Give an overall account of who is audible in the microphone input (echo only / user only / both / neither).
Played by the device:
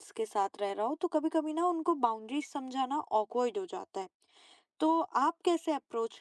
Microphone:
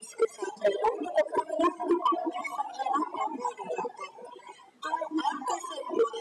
echo only